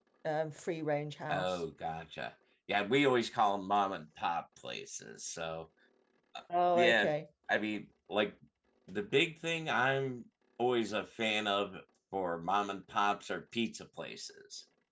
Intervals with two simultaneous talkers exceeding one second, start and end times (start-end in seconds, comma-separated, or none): none